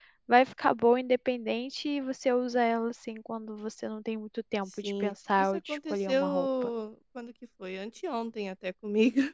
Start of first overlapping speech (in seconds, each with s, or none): 4.7 s